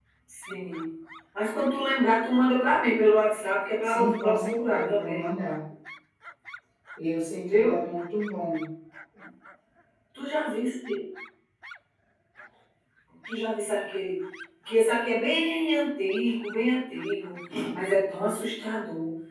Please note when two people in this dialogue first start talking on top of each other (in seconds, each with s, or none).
3.8 s